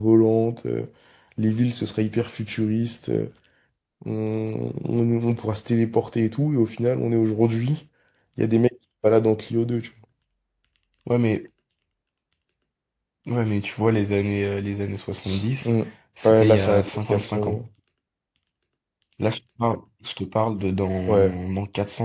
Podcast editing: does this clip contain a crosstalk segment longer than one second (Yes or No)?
Yes